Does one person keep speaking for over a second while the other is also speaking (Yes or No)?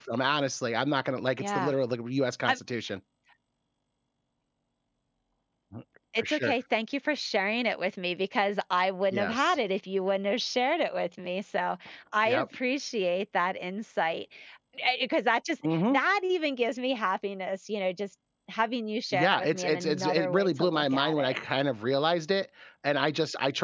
Yes